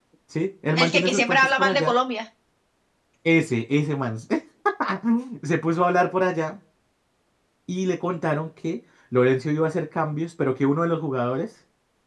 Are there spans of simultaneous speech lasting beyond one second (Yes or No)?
Yes